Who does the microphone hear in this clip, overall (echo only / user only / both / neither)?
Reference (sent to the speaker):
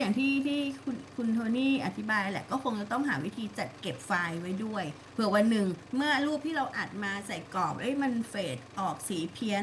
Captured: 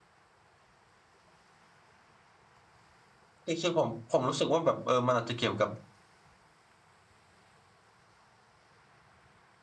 user only